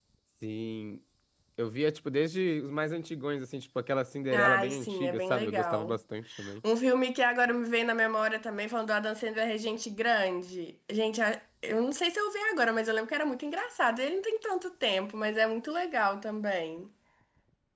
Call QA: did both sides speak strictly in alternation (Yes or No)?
No